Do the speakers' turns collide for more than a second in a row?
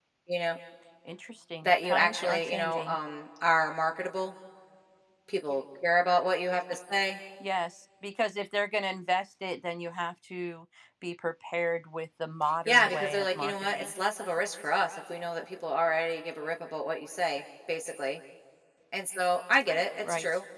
Yes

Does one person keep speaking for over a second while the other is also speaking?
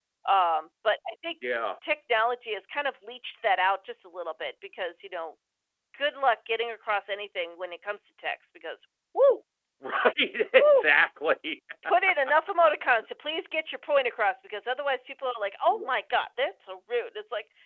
No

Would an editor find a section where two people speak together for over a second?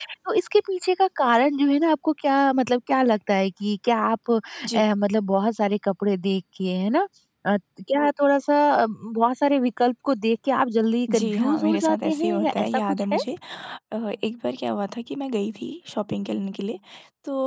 Yes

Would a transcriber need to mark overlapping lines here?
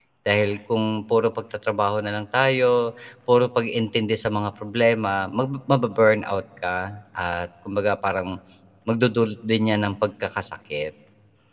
No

